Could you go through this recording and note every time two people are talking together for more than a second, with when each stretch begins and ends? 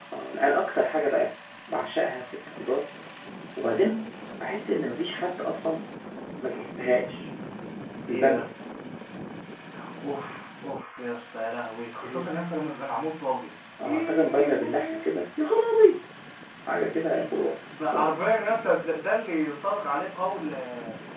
13.8-15.2

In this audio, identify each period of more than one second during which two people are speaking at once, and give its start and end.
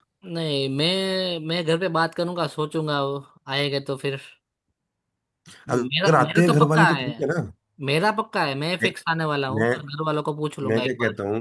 5.7-7.1

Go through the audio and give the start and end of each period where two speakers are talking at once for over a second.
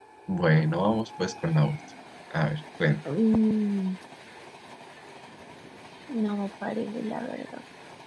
none

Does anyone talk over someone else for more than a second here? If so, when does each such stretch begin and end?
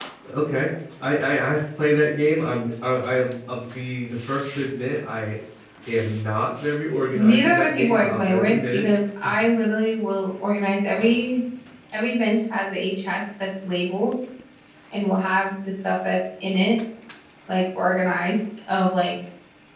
7.1-8.9

